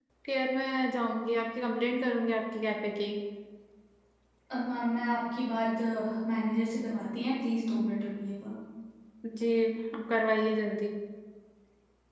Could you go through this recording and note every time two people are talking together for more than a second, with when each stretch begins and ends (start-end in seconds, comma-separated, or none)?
none